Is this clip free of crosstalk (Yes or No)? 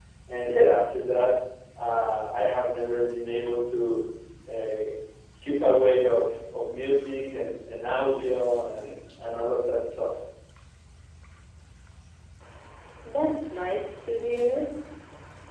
Yes